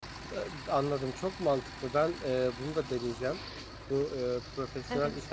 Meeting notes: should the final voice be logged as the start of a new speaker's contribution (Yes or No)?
No